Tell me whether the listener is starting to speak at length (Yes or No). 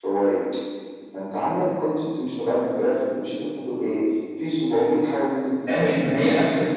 Yes